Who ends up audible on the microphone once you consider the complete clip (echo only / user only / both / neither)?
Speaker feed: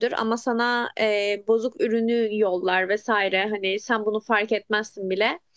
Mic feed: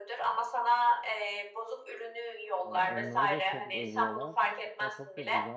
both